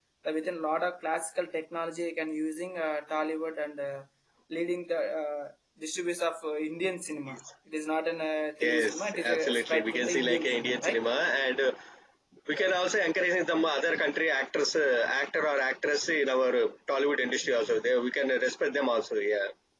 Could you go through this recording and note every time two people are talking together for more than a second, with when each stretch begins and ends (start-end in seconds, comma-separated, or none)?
8.6-11.0